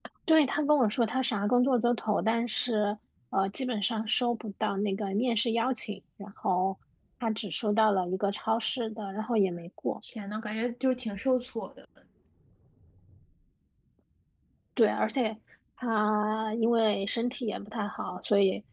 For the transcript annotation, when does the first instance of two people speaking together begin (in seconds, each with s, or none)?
none